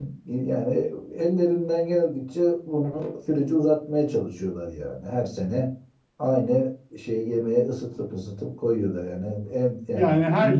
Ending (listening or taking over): taking over